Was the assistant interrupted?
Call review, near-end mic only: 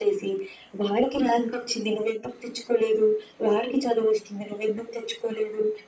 No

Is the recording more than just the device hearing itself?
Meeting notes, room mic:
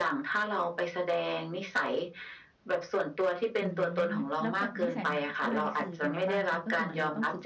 Yes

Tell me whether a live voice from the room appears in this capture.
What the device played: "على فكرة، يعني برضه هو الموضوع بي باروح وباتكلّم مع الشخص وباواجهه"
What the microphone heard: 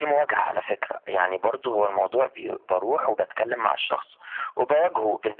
No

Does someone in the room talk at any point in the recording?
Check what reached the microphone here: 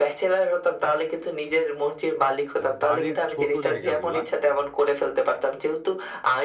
Yes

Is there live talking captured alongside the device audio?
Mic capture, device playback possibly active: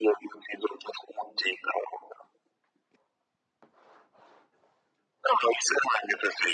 No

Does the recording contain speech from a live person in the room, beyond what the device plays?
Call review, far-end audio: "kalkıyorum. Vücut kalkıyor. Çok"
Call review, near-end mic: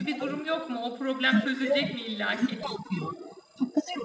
Yes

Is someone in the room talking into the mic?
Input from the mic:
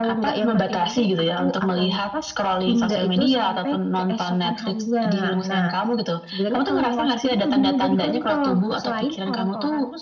No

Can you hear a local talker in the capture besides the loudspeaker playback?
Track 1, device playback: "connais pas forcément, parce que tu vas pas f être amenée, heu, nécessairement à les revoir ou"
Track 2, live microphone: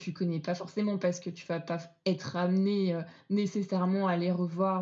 No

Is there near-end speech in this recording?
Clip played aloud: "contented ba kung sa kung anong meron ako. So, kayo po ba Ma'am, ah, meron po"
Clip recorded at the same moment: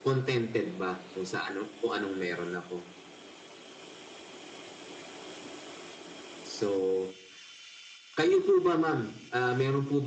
No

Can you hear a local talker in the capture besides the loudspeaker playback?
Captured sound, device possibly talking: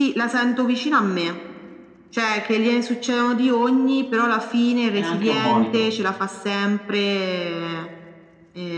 Yes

